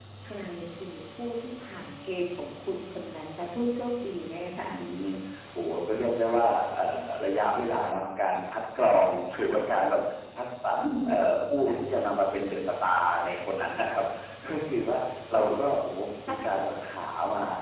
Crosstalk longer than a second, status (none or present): none